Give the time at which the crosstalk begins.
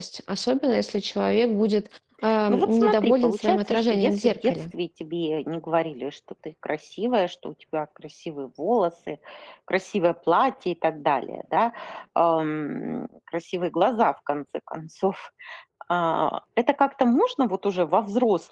2.3 s

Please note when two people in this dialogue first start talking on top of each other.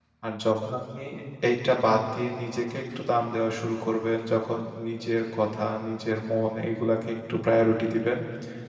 none

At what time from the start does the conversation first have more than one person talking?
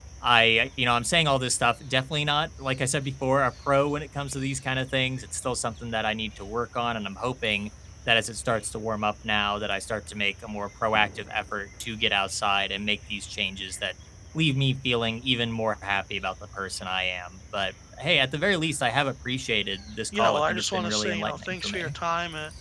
20.1 s

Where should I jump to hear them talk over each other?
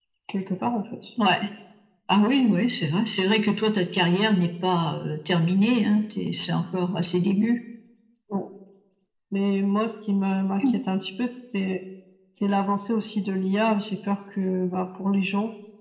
none

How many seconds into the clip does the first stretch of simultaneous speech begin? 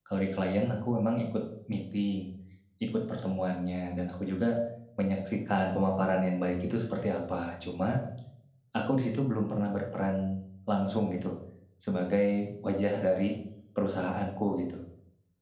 none

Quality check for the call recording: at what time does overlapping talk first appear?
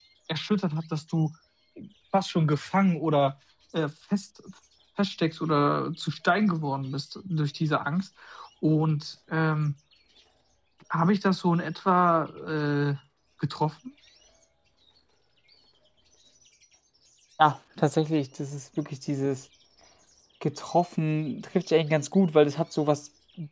none

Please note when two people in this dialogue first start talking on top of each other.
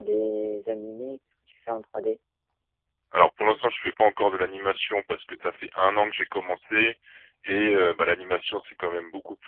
none

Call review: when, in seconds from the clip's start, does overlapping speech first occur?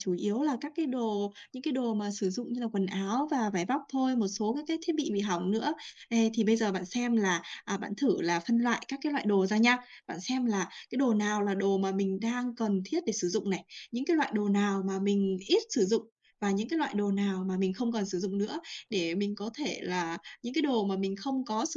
none

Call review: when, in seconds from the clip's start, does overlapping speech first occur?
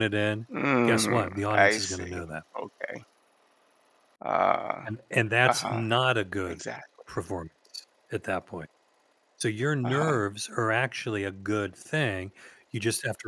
0.9 s

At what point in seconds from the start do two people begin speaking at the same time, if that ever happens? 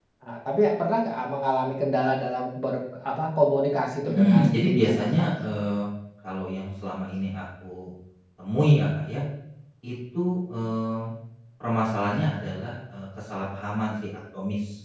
4.0 s

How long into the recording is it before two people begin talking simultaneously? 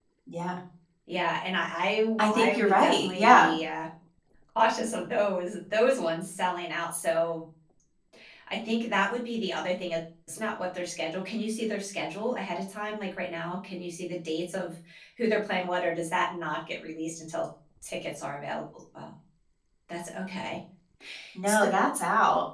2.2 s

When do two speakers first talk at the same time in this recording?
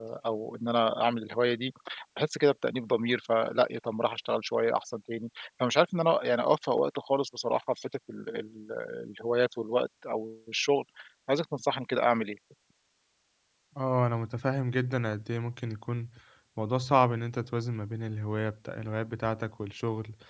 none

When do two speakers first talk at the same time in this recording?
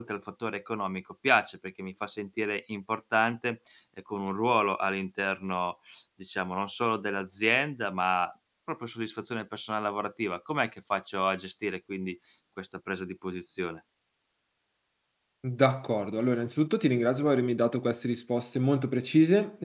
none

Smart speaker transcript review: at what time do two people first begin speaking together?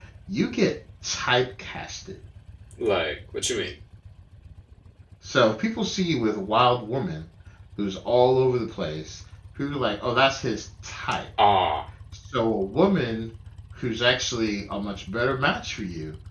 none

